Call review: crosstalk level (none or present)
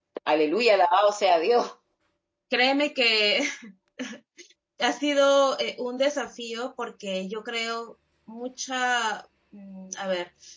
none